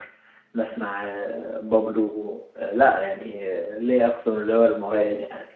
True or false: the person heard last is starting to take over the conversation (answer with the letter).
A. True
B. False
A